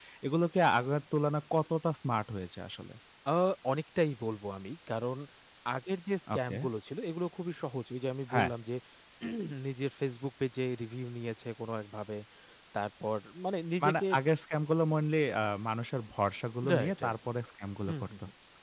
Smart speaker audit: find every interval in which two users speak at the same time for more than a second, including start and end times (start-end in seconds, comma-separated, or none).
none